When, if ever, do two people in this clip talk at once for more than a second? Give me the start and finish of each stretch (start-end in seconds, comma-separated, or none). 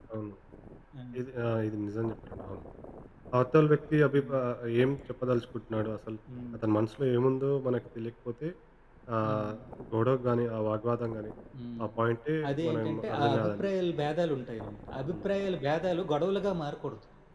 12.5-13.7